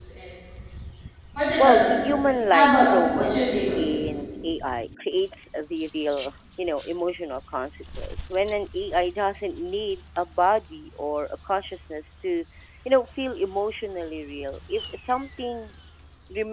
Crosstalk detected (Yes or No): Yes